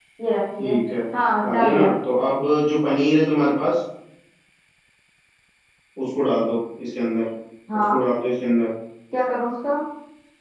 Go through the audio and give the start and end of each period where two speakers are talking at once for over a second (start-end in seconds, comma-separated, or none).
none